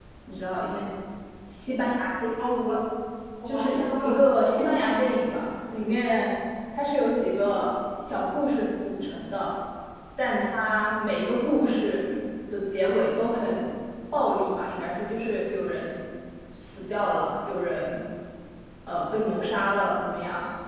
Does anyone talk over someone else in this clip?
Yes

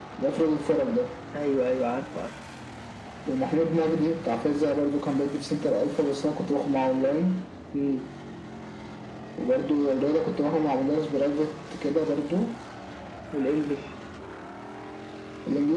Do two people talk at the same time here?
No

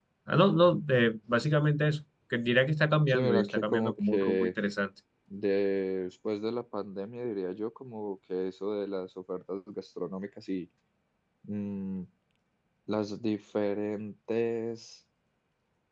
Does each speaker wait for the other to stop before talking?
No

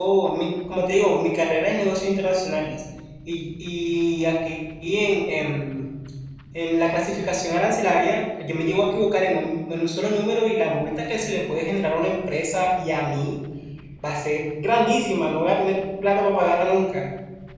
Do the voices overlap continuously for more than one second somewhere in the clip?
No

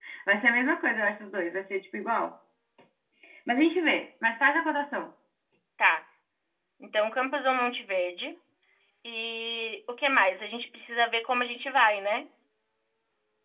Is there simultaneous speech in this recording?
No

